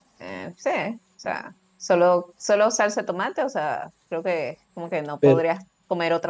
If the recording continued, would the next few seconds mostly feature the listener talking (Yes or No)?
No